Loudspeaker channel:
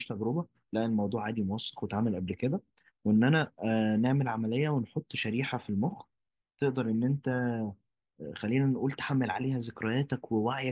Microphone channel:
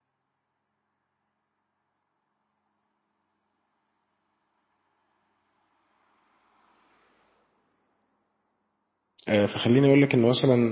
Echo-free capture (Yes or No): Yes